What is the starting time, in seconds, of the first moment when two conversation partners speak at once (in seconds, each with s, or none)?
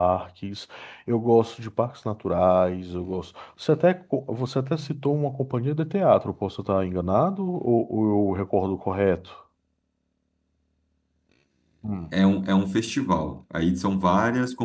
none